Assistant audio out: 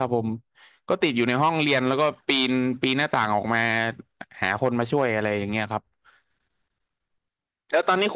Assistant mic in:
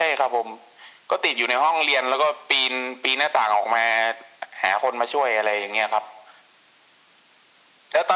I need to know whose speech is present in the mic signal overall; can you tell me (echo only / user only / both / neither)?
echo only